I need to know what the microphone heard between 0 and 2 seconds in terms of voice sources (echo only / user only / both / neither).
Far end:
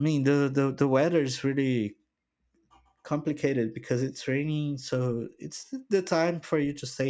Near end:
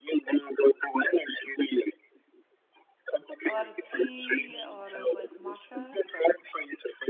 echo only